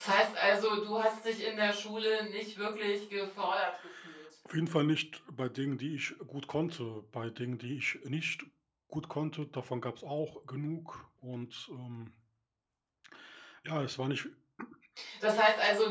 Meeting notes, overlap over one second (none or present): none